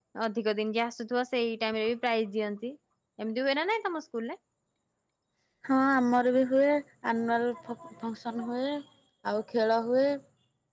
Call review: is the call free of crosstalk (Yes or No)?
Yes